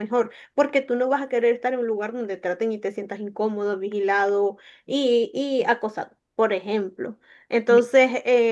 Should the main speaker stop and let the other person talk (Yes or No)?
No